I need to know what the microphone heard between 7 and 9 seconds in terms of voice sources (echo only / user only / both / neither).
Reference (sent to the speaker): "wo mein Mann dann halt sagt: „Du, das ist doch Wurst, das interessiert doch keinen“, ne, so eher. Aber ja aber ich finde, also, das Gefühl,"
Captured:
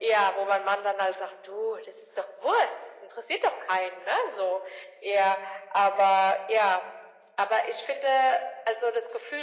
echo only